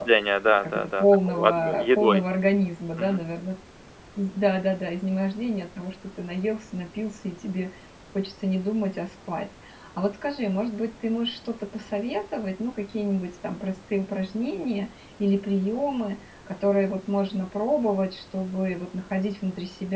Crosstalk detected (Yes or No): Yes